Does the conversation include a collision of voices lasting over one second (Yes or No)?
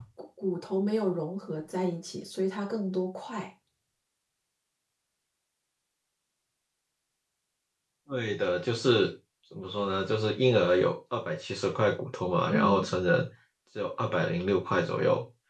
No